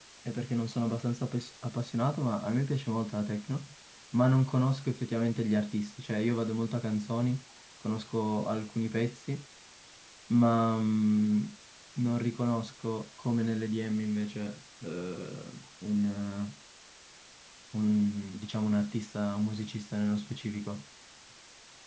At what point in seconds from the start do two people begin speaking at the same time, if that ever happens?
none

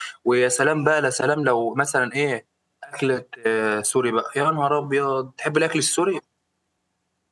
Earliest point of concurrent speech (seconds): none

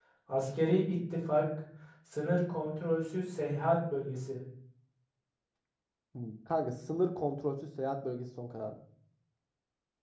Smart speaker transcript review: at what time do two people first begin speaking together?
none

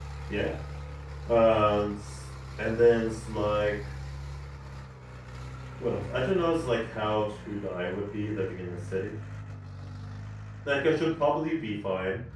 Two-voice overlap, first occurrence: none

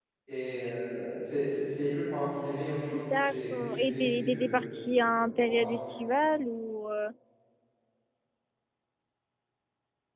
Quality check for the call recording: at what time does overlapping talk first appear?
2.9 s

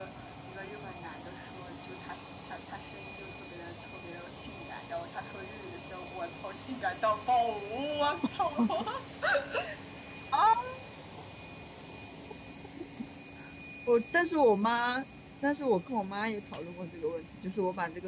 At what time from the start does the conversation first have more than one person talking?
none

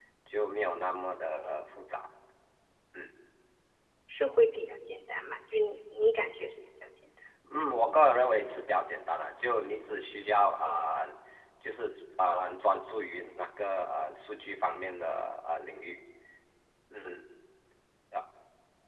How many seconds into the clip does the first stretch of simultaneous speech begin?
none

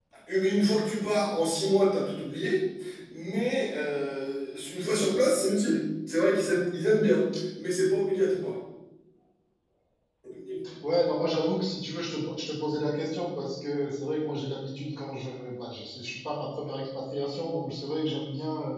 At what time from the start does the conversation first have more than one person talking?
none

